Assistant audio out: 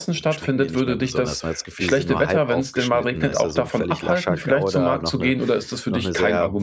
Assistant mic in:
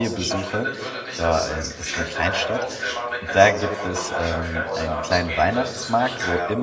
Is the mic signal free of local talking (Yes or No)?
No